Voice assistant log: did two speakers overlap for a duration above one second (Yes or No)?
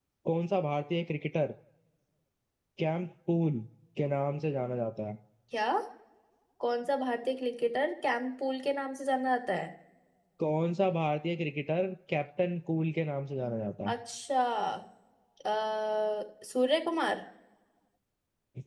No